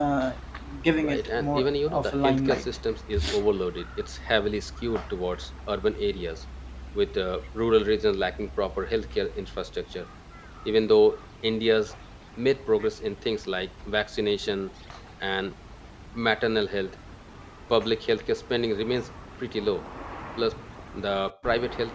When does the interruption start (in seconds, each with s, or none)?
1.0 s